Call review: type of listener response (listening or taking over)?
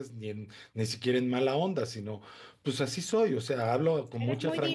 taking over